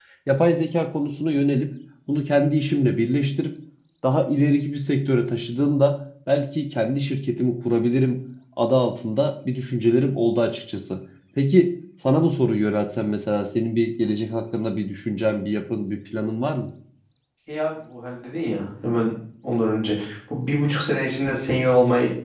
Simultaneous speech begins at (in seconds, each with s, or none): none